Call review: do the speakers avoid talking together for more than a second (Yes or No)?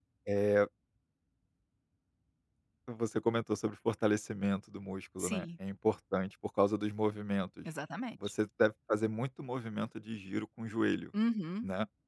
Yes